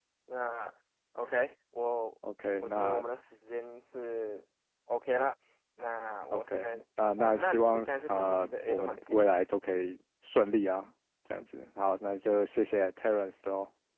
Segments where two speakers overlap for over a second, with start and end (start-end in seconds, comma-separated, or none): 7.2-9.2